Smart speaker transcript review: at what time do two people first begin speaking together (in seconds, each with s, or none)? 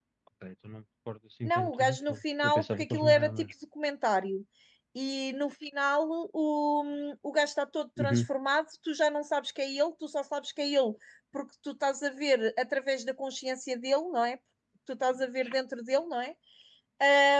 1.4 s